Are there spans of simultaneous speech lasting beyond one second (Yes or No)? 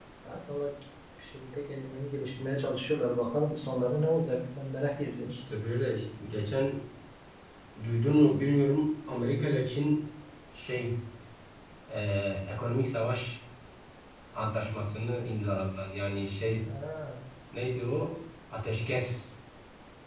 No